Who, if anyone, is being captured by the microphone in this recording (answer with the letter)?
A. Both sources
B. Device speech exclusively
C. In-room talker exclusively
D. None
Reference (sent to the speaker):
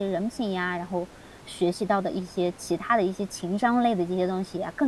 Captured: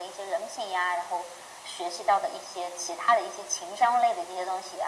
B